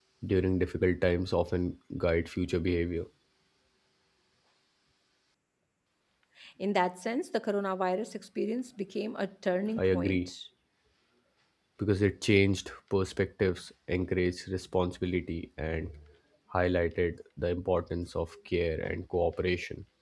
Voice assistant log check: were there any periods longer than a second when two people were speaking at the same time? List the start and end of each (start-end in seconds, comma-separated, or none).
none